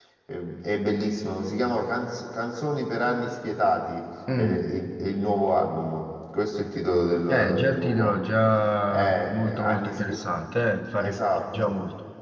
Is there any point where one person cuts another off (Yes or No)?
Yes